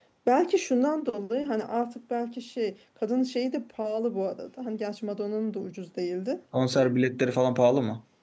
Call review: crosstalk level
none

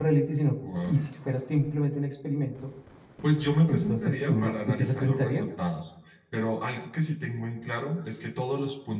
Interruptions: present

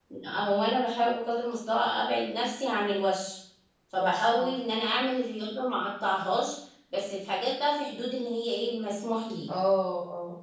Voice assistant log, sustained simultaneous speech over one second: none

